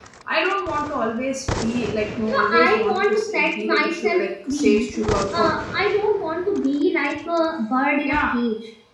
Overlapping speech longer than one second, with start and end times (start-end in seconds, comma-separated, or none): 2.3-5.5